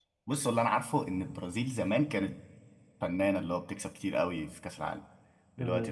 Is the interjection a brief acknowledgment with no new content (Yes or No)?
No